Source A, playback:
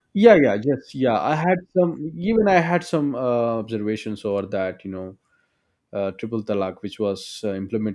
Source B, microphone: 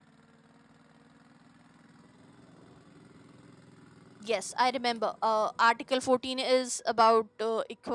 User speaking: Yes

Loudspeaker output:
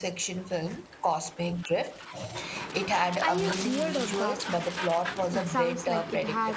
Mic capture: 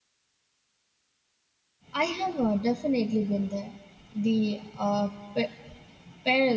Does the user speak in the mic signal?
Yes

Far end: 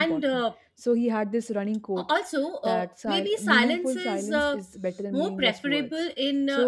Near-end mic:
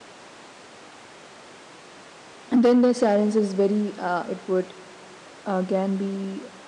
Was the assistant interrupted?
Yes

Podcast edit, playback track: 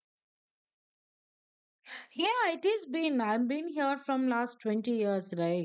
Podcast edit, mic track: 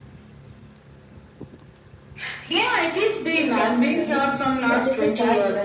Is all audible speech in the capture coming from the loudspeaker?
No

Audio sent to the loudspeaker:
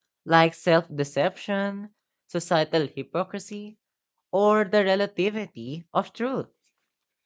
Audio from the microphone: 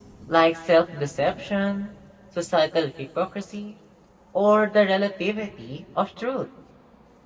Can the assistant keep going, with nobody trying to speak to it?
Yes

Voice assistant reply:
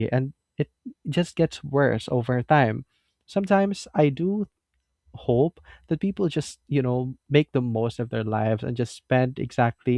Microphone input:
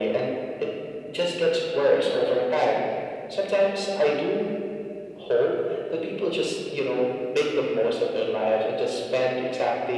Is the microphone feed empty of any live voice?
Yes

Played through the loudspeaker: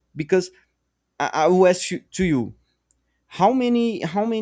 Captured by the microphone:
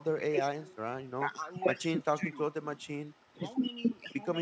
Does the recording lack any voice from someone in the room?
No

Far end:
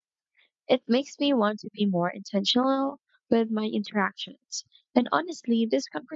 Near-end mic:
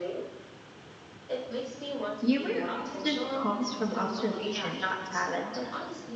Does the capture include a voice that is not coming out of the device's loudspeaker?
Yes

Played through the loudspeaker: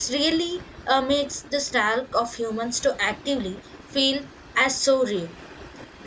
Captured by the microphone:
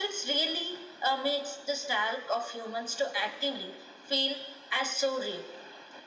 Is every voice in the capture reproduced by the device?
Yes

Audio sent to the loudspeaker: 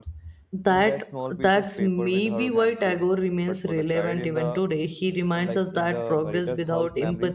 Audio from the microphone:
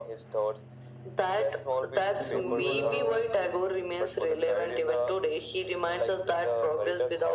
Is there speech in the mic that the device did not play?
Yes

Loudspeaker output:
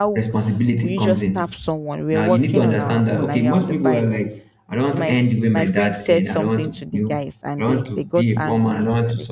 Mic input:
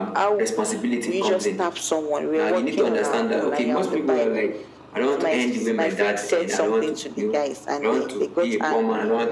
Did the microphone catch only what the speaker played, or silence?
Yes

